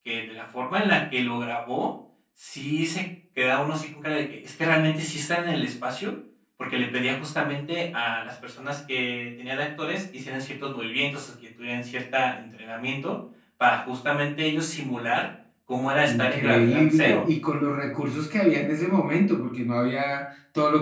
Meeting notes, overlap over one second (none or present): present